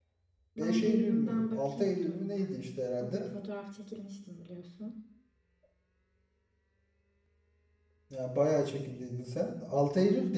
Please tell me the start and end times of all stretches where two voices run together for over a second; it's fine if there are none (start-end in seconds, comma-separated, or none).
0.6-2.6